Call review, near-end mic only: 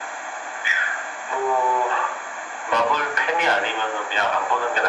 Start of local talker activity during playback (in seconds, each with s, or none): none